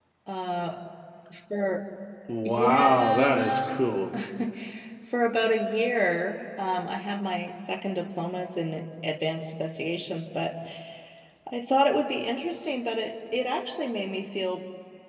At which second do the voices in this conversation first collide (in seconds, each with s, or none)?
2.4 s